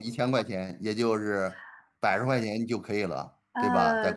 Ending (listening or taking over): taking over